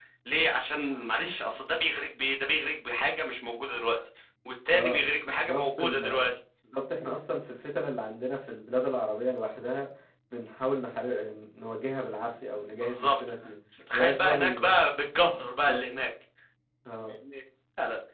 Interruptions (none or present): present